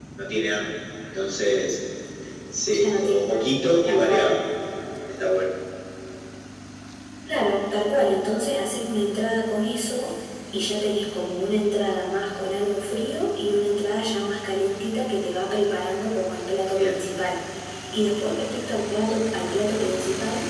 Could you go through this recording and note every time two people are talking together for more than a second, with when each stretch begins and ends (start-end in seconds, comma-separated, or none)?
2.8-4.3